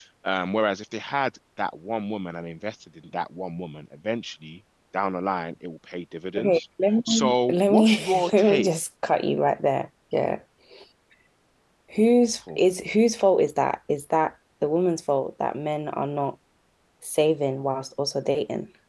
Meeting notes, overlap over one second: present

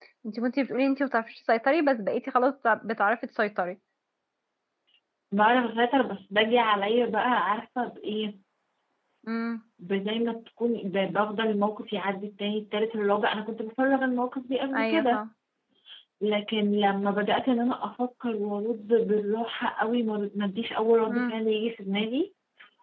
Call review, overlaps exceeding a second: none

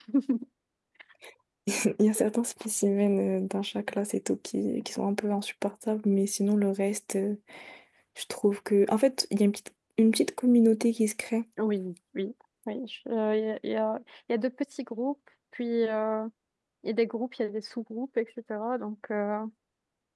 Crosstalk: none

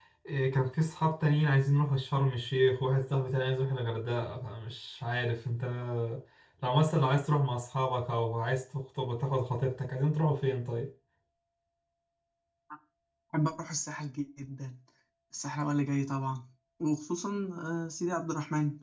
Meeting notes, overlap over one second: none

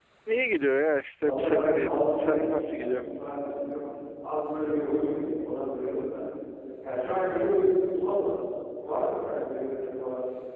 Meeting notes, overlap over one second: present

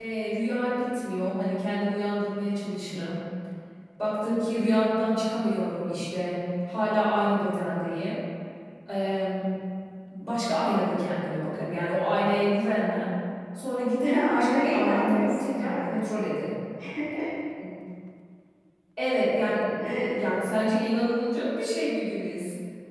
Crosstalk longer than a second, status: present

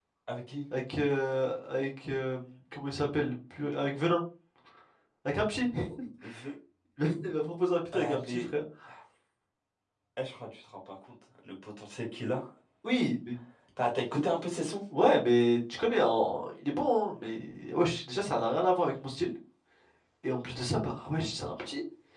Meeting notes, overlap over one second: none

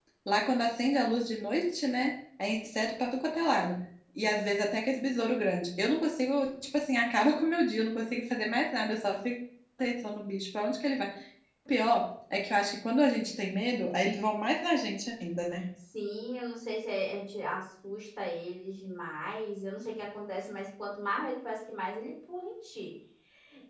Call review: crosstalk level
none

